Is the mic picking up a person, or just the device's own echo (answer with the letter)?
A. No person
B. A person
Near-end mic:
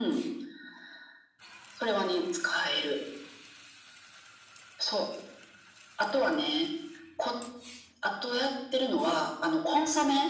A